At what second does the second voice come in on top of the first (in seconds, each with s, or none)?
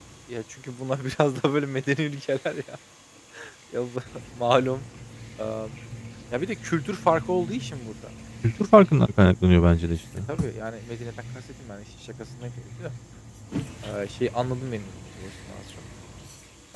none